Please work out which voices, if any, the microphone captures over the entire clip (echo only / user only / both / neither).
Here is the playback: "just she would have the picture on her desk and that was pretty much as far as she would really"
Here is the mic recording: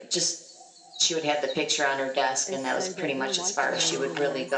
both